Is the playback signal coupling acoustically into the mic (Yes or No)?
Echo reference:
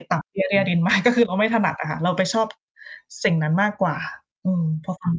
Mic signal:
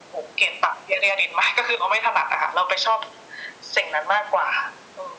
Yes